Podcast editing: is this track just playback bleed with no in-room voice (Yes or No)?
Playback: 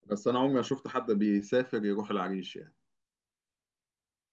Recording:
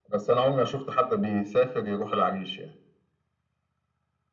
Yes